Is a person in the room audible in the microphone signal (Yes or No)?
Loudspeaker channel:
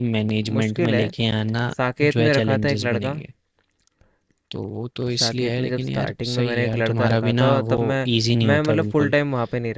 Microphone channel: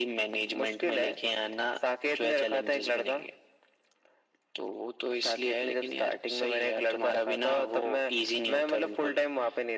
No